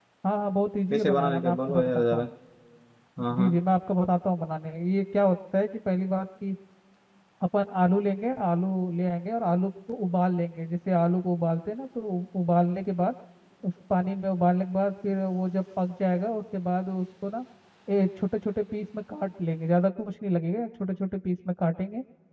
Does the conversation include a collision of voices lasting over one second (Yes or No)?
Yes